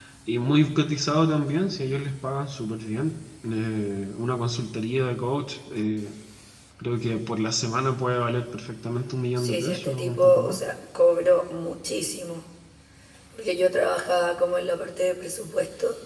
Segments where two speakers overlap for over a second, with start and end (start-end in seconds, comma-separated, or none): 9.4-10.6